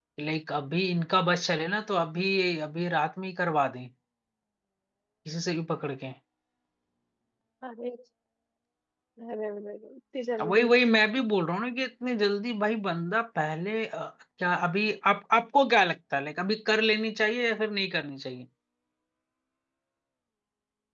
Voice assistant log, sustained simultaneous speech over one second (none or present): none